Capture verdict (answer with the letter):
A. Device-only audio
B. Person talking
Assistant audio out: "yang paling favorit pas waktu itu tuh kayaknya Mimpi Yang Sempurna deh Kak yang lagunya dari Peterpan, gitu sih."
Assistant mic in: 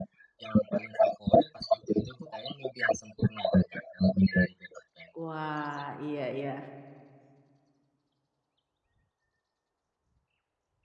B